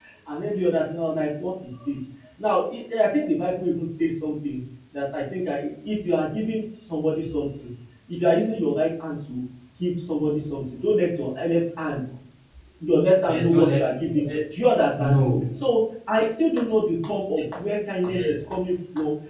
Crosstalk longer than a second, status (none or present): none